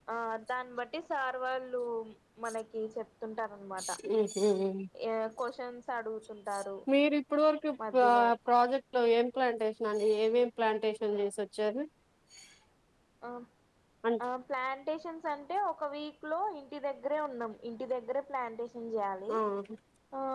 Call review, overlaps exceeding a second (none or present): none